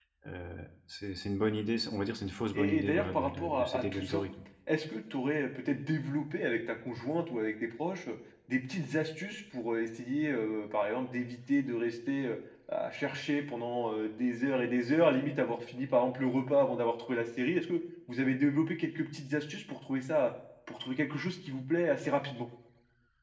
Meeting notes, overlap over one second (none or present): present